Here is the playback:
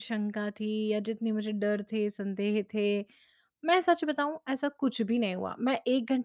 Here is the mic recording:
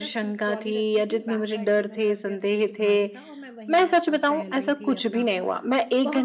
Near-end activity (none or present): present